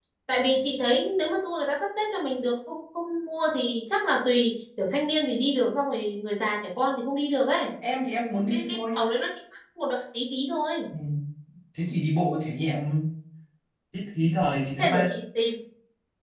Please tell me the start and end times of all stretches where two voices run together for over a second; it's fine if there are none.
none

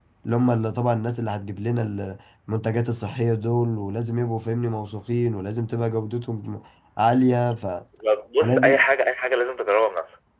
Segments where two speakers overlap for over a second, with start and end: none

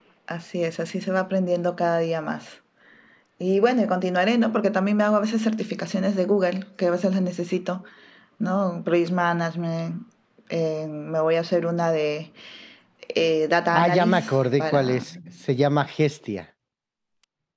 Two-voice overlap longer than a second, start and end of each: 13.7-15.0

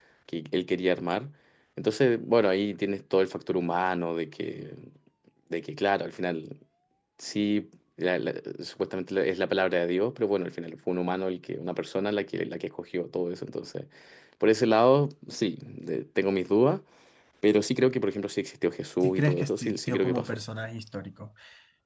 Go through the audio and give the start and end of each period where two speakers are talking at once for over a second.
19.0-20.4

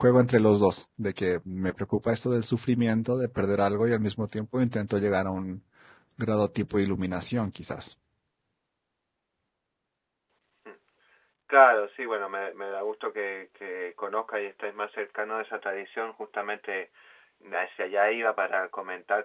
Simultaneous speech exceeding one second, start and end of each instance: none

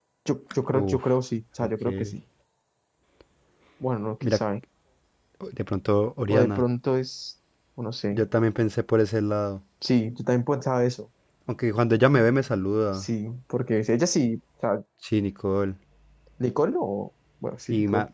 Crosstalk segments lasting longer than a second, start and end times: none

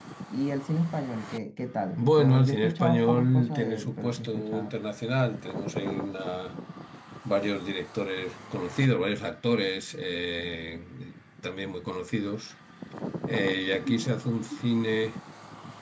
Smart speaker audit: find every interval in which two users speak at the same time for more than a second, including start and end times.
2.0-4.8

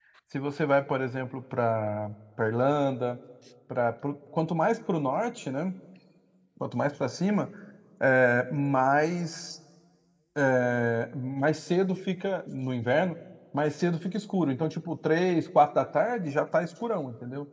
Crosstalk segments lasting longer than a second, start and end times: none

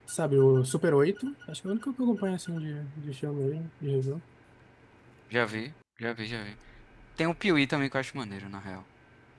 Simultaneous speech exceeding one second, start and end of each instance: none

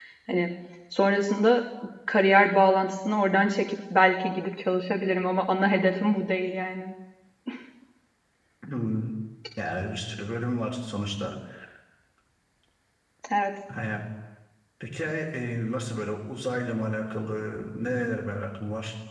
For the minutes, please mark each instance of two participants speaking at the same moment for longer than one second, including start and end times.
none

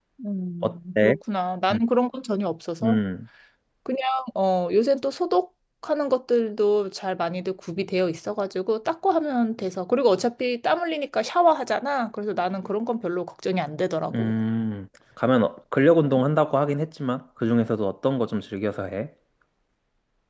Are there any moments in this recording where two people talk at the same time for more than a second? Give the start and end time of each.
none

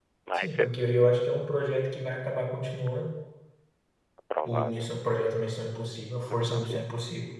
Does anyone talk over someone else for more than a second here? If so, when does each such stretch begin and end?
none

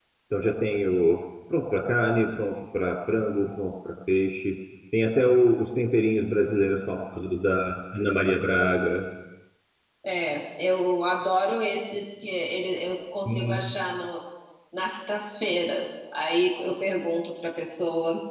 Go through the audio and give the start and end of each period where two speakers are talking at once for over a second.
none

